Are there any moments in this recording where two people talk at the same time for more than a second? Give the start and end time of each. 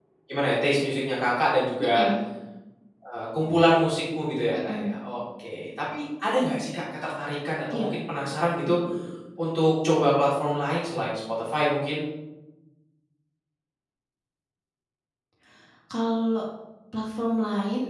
none

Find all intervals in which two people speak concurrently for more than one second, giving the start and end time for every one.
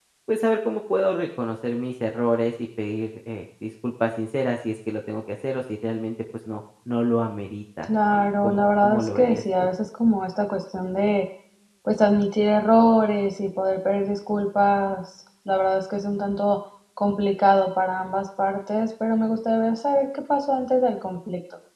7.8-9.7

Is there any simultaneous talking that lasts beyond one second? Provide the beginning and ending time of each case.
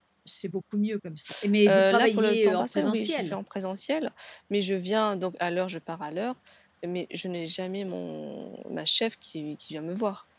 1.7-3.4

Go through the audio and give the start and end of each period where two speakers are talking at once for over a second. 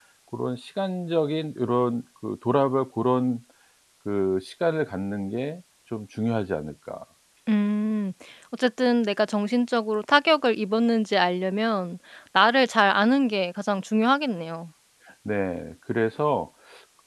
none

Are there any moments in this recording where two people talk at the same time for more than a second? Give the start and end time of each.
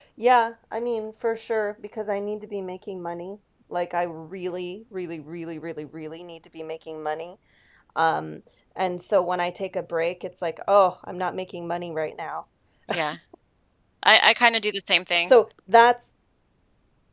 none

